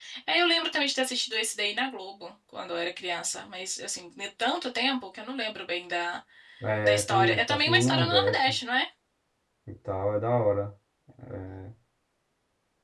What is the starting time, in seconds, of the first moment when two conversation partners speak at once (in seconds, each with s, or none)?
6.8 s